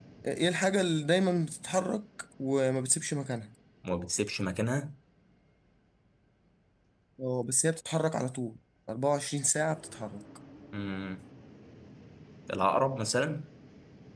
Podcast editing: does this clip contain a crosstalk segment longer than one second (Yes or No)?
No